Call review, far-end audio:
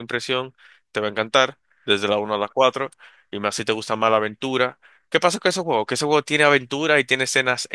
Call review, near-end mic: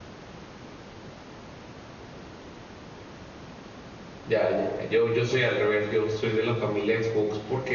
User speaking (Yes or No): Yes